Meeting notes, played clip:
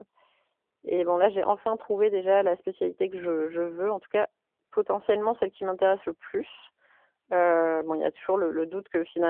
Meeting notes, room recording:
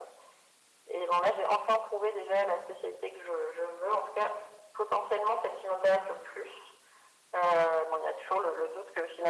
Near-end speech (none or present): none